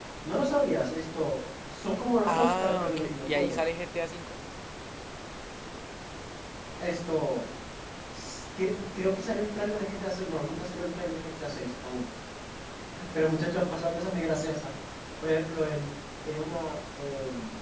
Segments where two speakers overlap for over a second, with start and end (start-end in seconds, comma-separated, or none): 2.3-3.6